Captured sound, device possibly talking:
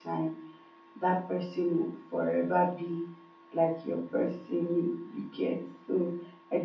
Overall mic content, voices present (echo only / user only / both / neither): user only